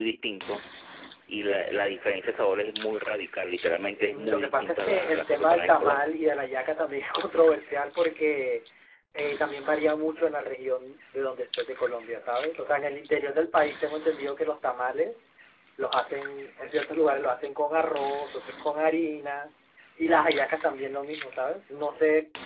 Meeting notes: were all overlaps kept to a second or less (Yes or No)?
No